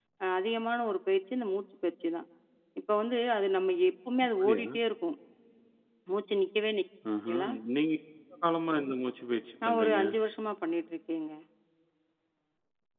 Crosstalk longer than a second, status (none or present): none